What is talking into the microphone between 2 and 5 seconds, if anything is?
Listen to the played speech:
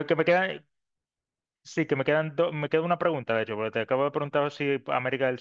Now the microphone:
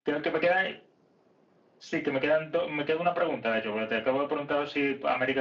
echo only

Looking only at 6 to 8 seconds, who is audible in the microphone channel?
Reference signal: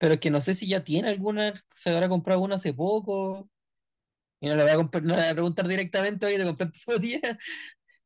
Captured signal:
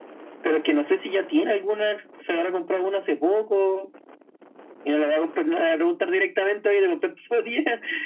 echo only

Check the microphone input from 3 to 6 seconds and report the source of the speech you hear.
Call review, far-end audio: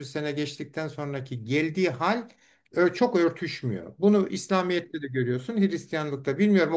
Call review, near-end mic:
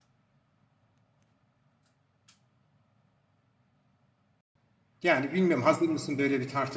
user only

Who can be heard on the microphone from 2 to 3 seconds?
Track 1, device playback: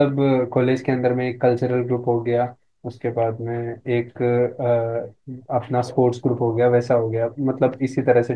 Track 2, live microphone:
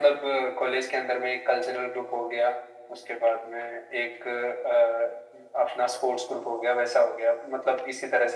echo only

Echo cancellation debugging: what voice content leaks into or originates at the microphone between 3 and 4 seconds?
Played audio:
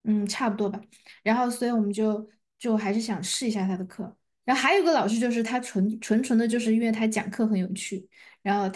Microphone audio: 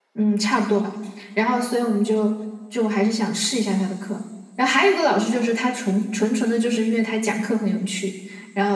echo only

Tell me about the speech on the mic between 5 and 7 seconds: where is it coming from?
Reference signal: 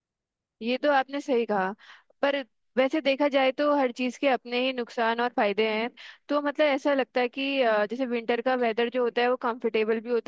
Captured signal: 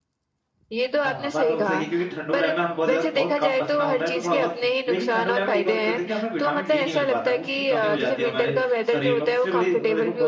both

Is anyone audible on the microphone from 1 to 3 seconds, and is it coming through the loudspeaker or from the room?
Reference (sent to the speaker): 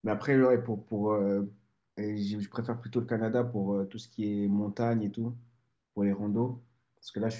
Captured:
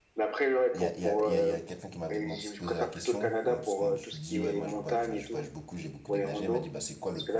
both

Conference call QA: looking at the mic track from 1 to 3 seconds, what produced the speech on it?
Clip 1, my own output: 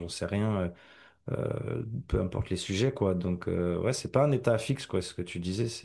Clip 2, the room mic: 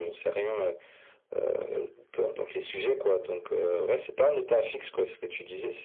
echo only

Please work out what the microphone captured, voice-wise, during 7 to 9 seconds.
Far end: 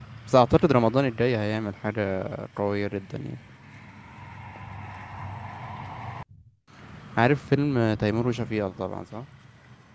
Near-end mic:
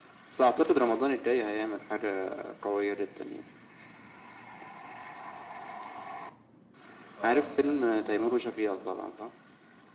both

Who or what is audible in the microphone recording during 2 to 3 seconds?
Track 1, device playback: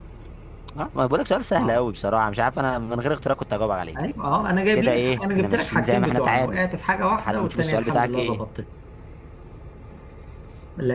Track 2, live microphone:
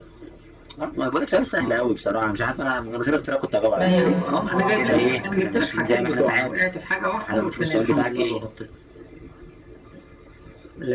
echo only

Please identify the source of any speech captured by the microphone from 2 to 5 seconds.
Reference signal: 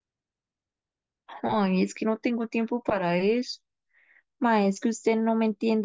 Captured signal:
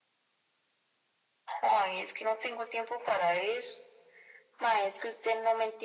echo only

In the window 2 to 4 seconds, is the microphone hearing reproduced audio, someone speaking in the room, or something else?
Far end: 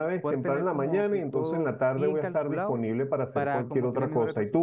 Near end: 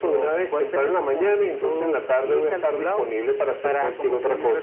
echo only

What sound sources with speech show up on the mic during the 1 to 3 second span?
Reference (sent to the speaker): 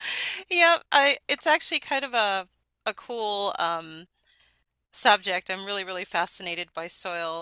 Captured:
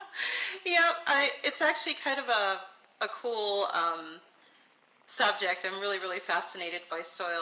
echo only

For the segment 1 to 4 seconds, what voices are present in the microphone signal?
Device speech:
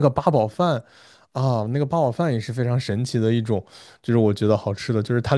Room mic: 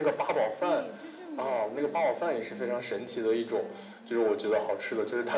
both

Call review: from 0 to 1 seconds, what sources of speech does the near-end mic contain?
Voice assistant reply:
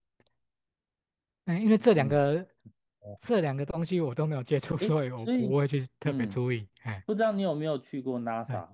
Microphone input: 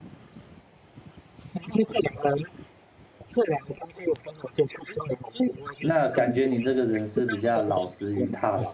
neither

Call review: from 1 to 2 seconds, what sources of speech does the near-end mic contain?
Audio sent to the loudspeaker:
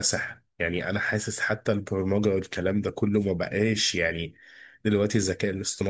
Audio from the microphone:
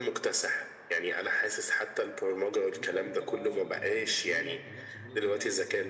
echo only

